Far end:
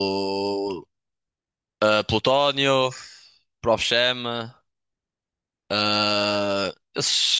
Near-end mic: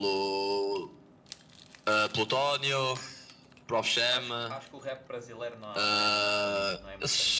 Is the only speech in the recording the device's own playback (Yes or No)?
No